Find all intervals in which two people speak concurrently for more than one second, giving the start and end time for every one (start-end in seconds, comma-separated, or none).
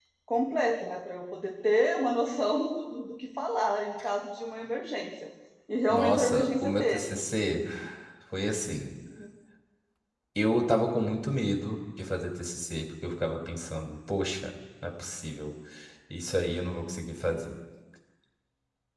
5.9-7.2